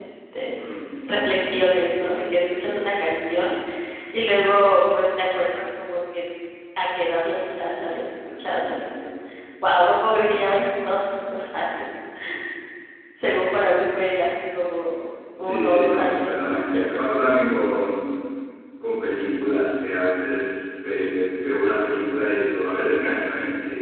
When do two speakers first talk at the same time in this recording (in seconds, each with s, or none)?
15.4 s